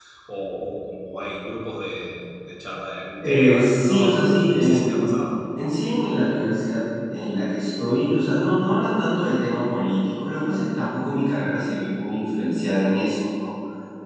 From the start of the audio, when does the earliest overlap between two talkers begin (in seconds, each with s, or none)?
3.2 s